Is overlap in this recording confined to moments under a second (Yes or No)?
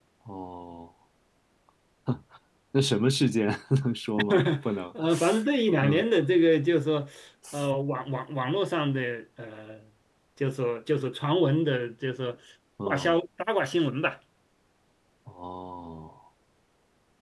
Yes